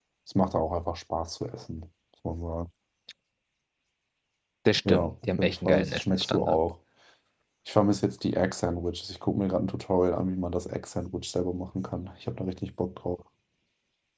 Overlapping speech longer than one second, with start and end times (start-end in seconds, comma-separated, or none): 4.9-6.6